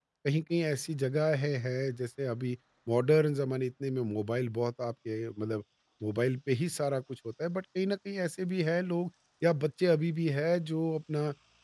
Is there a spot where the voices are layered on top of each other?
No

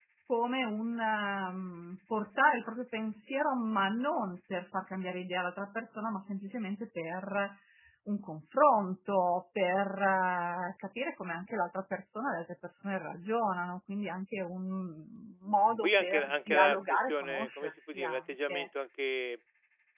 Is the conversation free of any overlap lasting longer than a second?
No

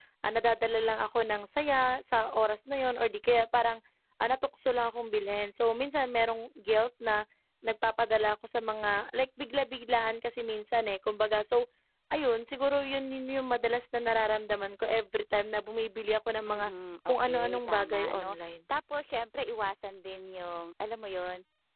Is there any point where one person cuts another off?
Yes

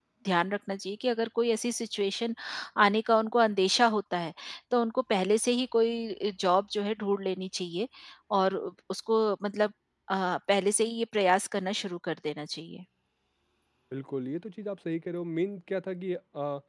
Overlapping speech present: No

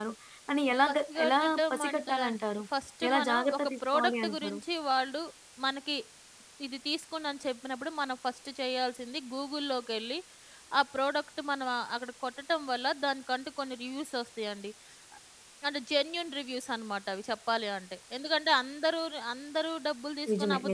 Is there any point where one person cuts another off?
Yes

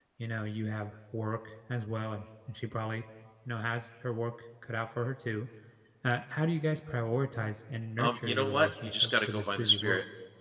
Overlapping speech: Yes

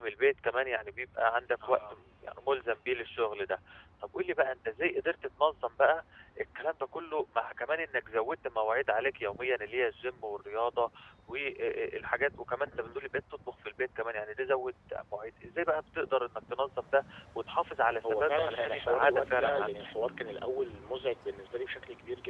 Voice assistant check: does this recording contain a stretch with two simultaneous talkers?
Yes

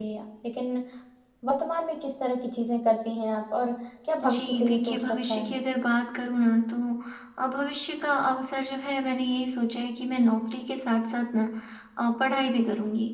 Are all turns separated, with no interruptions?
No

